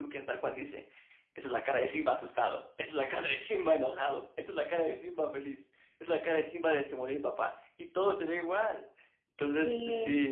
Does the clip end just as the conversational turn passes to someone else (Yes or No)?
No